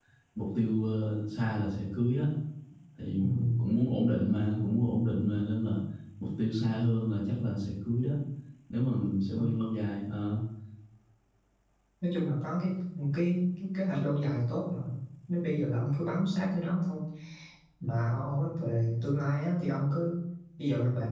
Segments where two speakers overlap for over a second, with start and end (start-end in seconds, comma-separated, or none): none